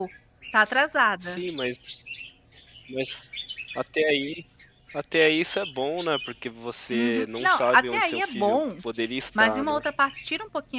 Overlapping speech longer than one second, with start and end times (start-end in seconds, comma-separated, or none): 6.9-8.6